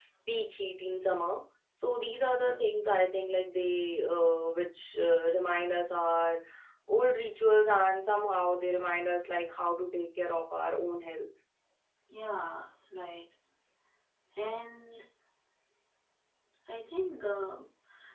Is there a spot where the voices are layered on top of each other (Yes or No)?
No